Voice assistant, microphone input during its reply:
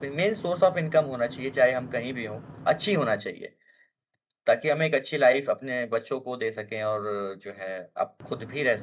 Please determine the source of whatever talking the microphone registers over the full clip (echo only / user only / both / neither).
echo only